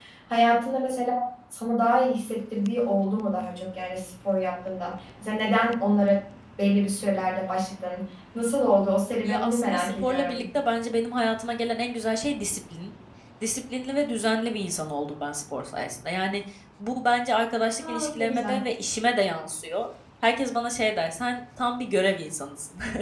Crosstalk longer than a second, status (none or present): present